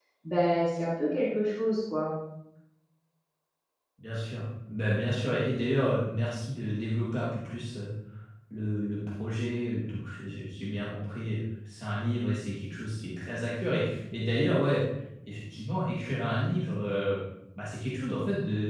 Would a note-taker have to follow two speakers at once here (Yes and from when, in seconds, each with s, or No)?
No